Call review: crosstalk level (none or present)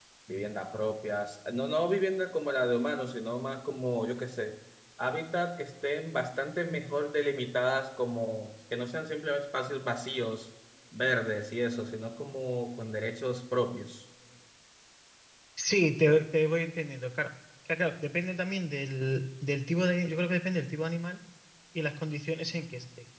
none